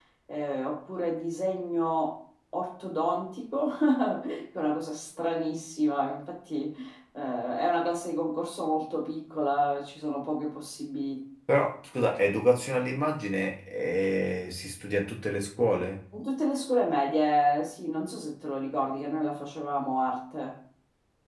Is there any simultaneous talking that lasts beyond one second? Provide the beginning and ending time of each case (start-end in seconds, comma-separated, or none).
none